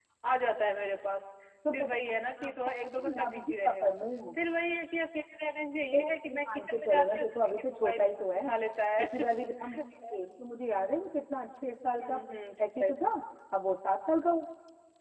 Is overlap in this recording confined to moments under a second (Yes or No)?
No